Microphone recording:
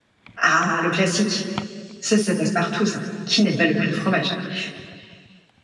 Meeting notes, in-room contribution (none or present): present